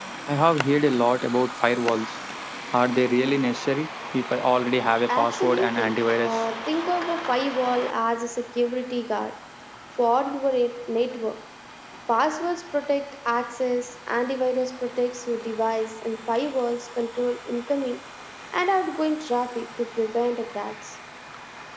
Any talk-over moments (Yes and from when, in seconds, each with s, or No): Yes, from 5.1 s